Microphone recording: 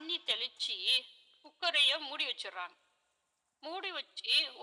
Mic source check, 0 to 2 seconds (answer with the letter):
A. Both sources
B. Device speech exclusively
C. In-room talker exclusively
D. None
B